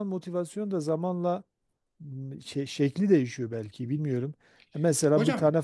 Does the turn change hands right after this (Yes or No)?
No